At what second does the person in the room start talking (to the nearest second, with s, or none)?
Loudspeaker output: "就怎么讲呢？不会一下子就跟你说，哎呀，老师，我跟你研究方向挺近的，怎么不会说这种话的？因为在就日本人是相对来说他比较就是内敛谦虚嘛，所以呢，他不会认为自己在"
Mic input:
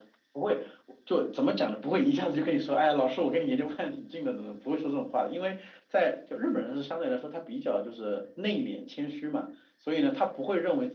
none